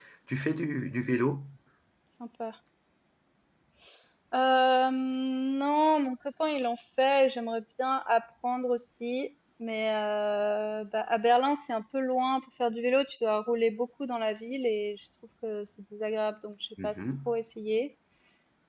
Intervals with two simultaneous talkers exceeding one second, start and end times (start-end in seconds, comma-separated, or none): none